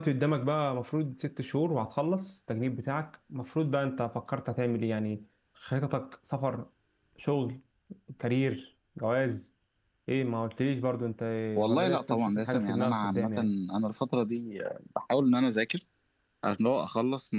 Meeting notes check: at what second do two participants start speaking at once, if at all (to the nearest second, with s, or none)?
12 s